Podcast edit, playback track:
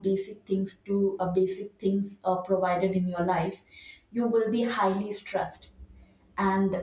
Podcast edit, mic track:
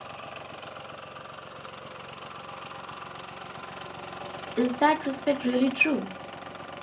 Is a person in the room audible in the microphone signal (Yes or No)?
Yes